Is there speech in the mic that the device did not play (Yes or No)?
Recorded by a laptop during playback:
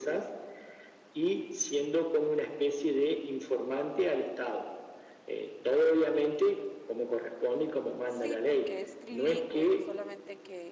Yes